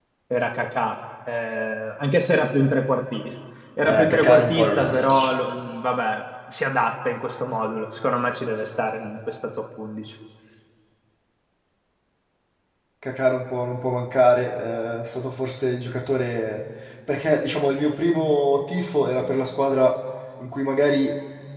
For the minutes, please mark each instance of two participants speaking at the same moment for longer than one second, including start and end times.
3.8-5.3

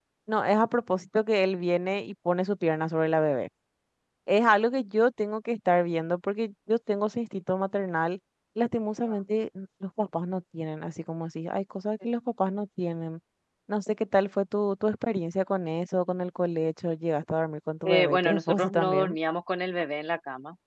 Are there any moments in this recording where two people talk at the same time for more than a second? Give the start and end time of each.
17.8-19.1

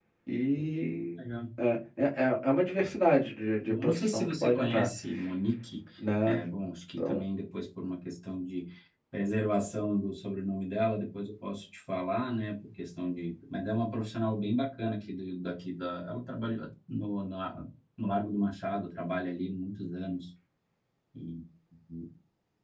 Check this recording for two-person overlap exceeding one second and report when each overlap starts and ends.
3.6-4.9

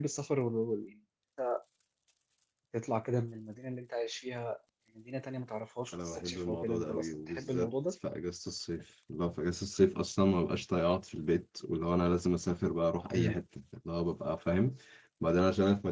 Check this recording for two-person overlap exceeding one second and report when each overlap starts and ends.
5.9-7.7

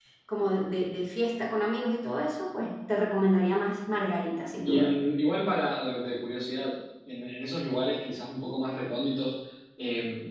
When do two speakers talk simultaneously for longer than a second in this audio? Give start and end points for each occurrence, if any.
none

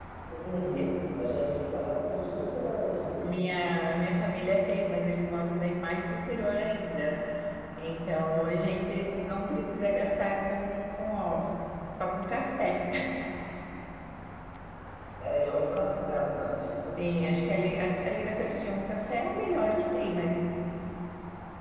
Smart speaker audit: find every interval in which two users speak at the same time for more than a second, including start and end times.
none

